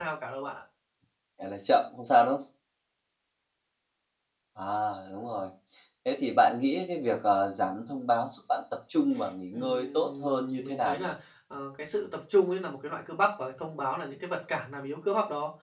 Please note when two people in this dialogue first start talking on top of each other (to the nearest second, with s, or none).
10 s